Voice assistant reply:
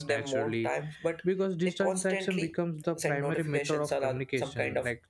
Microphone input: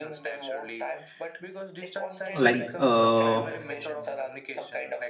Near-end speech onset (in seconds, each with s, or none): 2.3 s